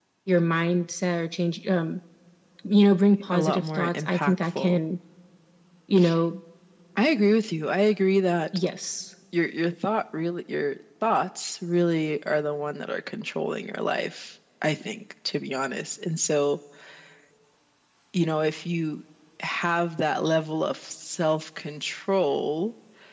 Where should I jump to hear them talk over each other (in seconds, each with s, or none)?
3.3 s